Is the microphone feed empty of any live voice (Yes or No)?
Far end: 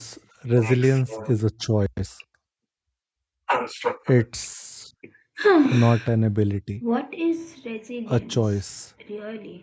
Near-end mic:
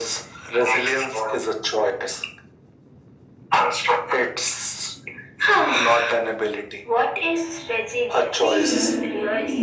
No